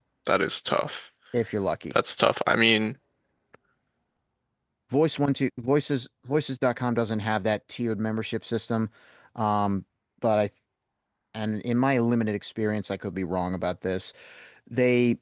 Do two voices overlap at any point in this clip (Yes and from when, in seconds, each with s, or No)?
No